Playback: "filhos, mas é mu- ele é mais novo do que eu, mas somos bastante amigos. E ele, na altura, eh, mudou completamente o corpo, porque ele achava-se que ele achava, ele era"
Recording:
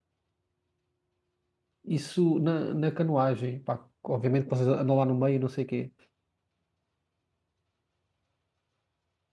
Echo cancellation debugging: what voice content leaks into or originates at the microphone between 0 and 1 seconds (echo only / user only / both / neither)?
neither